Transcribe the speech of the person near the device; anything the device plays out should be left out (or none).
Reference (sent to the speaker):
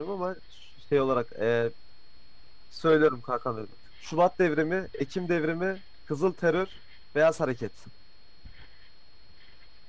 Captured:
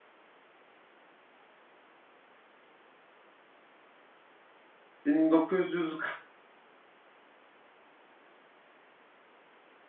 1940